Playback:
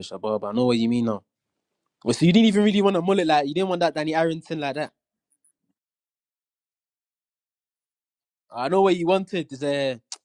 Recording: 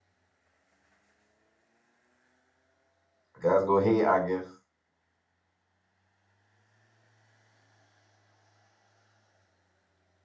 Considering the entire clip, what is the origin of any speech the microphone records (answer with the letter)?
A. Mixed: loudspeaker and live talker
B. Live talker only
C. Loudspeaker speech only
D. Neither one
B